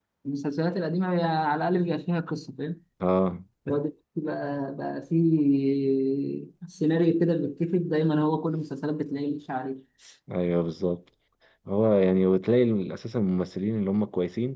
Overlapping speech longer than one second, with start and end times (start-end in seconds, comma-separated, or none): none